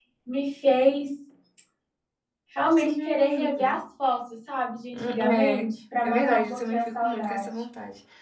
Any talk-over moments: Yes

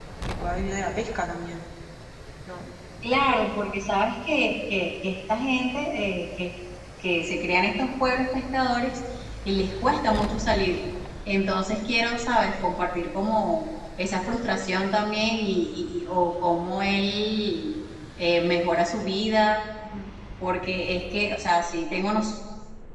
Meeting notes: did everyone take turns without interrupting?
Yes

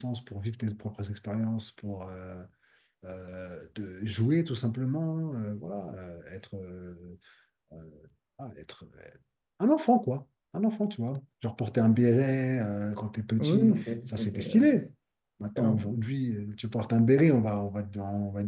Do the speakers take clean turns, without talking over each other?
No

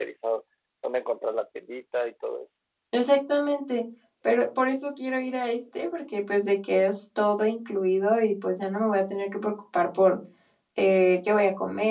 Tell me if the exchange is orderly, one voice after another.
Yes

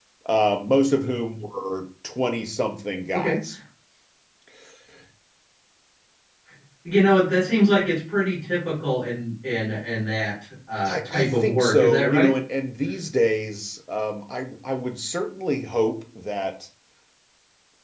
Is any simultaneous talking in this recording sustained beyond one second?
Yes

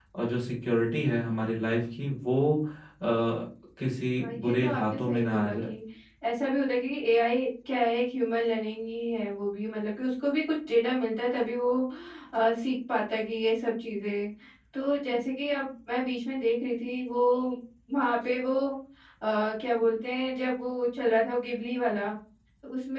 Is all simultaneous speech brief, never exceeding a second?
No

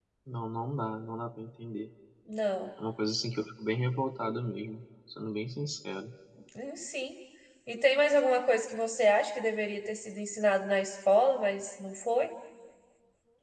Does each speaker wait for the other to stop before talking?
Yes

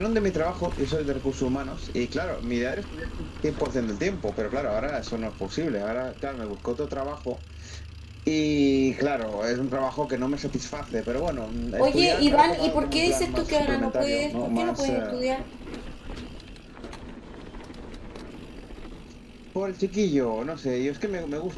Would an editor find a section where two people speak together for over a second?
Yes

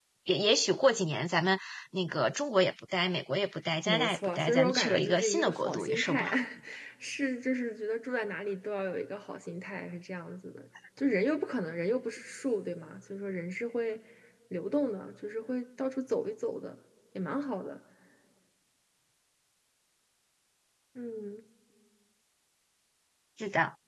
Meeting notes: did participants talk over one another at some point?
Yes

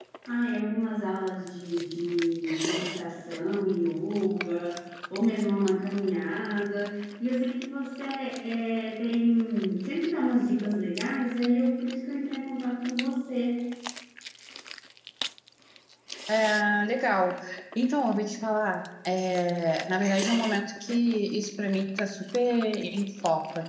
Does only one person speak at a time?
Yes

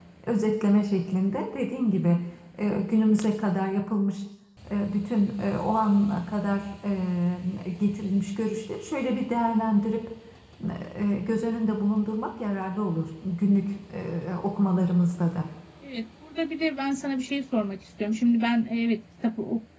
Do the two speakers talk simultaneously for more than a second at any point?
No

